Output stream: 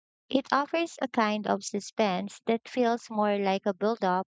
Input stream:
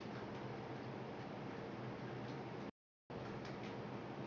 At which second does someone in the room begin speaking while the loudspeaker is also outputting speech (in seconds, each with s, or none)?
none